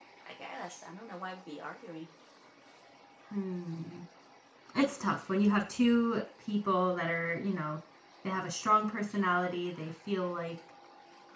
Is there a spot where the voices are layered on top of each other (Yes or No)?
No